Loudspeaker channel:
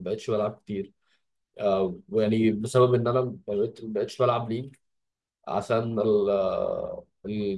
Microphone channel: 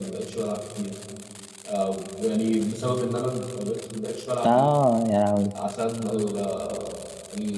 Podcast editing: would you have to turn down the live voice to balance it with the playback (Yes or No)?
Yes